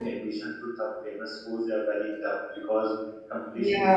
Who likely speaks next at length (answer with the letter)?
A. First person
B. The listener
A